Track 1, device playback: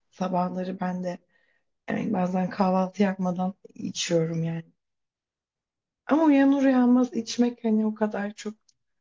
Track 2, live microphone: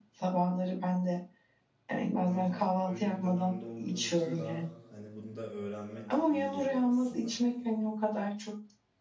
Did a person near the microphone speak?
Yes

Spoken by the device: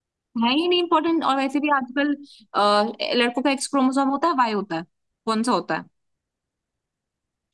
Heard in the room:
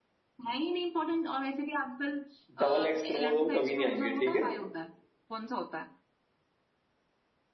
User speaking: Yes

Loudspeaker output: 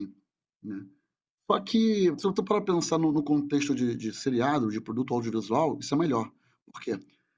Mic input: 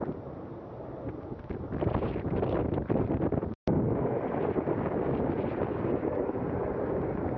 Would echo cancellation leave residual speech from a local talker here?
No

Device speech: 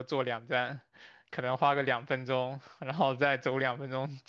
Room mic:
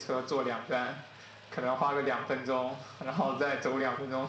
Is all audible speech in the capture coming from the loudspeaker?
Yes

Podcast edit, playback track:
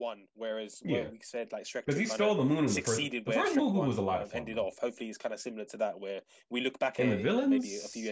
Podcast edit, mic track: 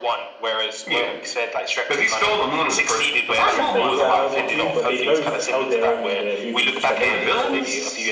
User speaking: Yes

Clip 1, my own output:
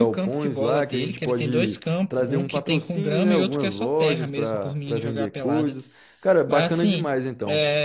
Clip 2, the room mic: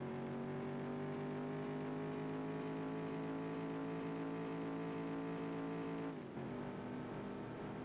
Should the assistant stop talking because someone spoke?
No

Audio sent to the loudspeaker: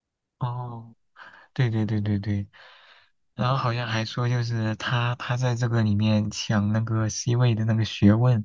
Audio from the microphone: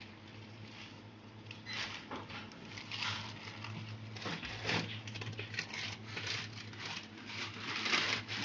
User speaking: No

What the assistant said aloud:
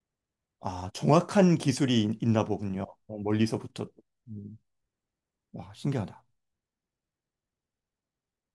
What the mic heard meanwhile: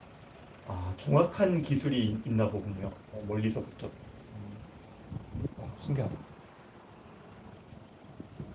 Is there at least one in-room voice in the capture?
No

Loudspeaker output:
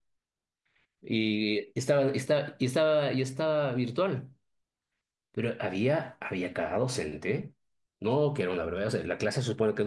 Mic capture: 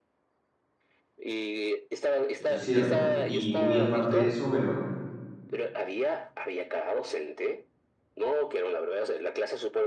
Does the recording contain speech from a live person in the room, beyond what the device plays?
Yes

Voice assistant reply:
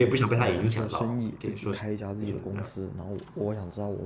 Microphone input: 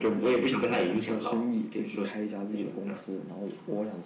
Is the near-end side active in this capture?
No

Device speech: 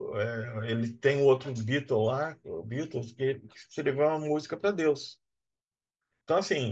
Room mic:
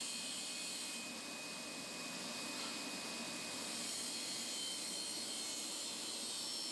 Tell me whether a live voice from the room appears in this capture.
No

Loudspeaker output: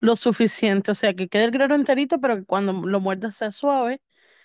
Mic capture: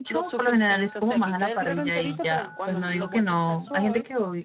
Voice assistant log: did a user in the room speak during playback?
Yes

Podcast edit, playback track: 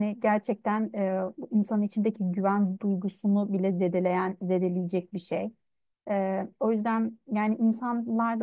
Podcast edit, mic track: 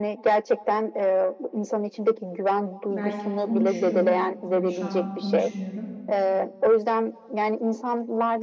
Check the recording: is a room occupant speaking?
Yes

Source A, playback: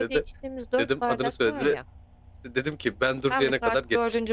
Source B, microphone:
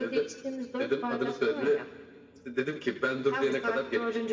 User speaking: No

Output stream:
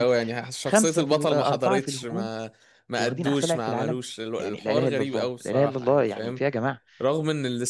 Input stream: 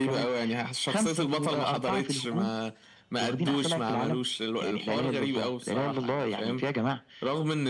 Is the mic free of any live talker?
Yes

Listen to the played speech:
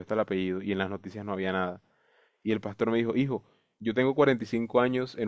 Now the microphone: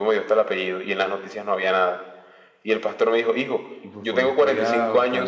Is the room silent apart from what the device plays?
No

